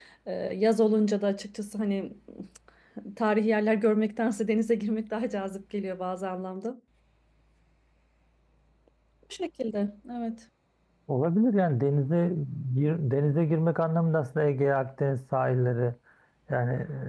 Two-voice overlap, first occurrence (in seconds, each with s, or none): none